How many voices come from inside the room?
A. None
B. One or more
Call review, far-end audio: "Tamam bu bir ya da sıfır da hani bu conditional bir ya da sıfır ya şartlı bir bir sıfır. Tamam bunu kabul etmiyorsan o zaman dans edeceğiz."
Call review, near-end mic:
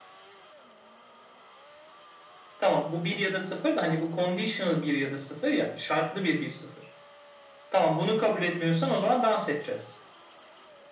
A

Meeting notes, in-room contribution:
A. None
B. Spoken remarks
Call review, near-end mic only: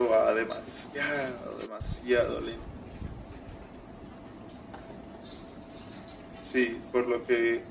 A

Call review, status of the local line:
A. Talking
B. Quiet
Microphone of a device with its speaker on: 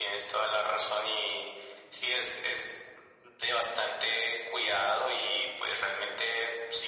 B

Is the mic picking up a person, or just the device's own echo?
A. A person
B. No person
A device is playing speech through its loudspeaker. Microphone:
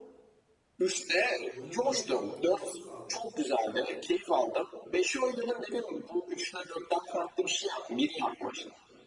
A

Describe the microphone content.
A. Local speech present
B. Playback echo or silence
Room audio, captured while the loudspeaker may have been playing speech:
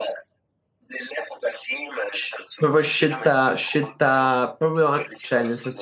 A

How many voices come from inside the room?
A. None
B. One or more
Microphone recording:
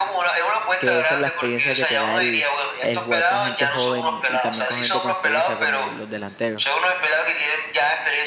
B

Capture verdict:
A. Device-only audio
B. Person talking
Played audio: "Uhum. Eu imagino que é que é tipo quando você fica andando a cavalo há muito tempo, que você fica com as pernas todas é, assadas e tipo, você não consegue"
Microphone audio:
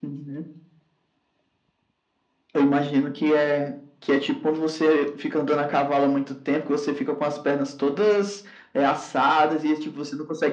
A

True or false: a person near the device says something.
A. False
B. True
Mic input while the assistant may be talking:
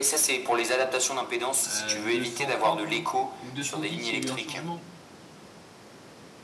B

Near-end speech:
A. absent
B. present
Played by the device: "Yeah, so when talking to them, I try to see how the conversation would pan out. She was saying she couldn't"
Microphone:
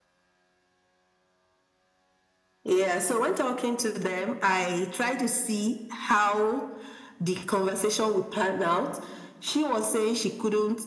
A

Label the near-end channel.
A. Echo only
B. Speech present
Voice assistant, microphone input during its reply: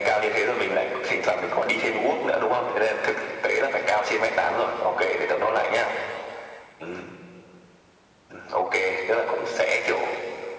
A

